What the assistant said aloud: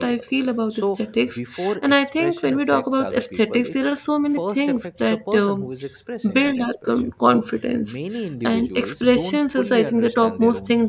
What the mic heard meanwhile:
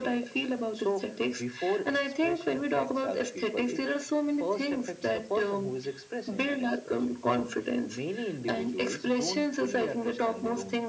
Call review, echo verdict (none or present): present